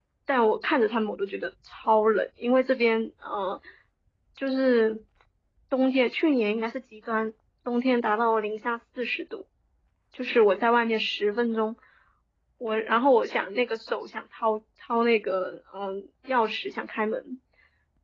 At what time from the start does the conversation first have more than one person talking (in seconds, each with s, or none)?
none